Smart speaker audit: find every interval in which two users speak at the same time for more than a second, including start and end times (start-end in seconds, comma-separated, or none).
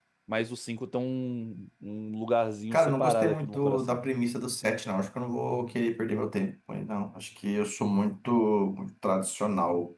2.7-4.0